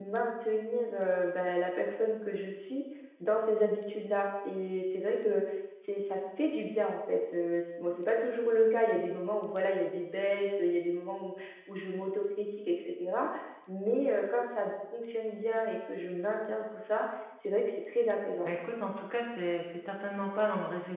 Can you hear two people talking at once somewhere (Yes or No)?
No